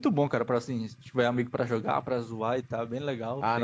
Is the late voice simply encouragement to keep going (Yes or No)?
No